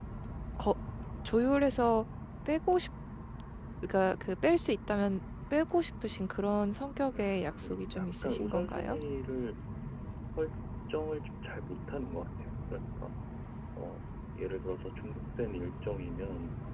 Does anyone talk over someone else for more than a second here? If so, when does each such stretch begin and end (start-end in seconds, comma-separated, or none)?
7.4-9.0